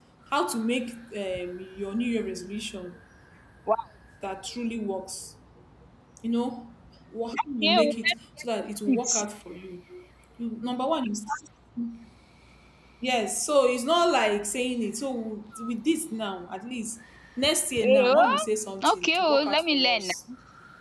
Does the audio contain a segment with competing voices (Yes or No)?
Yes